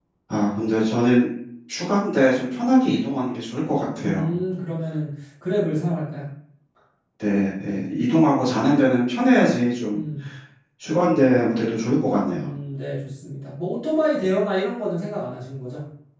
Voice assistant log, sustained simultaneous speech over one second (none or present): none